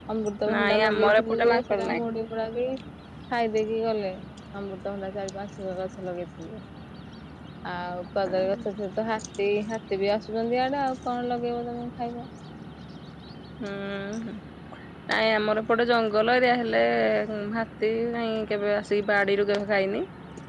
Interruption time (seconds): 1 s

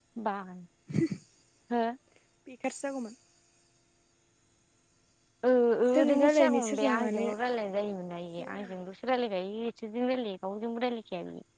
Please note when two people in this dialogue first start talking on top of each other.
6 s

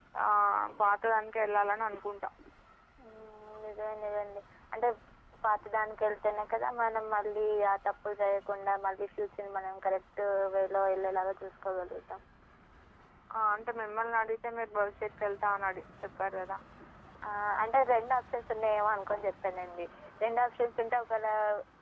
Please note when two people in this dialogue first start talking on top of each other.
none

